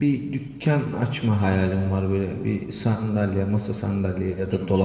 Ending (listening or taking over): listening